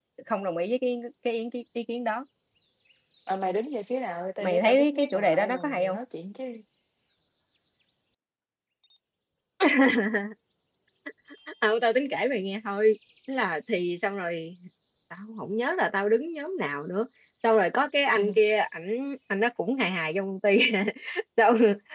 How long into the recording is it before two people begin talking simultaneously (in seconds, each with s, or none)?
4.4 s